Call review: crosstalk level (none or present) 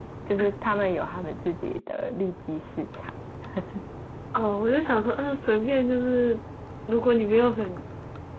none